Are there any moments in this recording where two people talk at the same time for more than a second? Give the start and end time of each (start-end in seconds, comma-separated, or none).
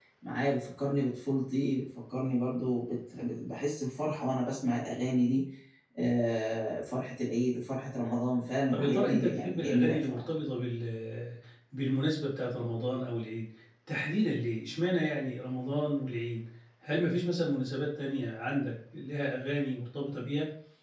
8.7-10.2